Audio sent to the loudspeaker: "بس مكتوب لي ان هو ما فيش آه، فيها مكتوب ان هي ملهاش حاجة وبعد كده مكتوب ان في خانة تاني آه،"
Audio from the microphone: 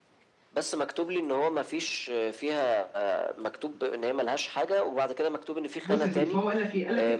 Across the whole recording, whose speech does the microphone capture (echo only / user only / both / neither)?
both